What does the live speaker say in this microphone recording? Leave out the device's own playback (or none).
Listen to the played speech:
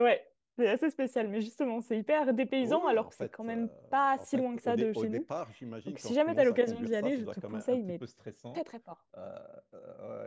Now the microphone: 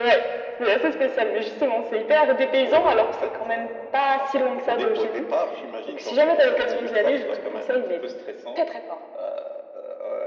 none